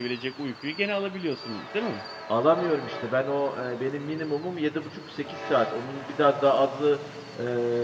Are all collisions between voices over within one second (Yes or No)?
Yes